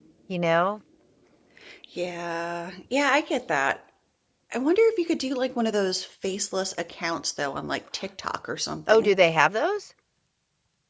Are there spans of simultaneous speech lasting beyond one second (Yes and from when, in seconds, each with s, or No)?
No